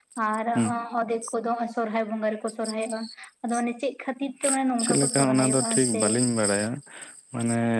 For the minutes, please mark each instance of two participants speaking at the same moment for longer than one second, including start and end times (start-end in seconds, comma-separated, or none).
4.8-6.0